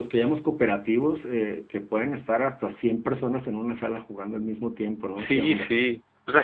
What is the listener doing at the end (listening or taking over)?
taking over